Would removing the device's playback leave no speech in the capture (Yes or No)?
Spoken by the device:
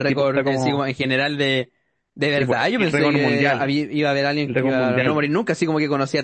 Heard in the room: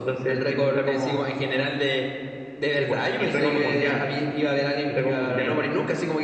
Yes